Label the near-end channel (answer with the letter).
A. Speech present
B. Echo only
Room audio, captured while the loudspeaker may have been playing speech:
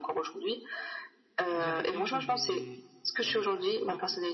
A